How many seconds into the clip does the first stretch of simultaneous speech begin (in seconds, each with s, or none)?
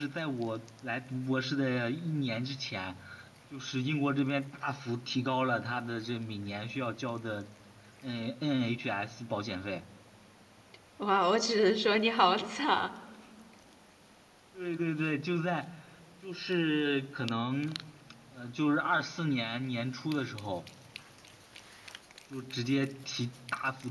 none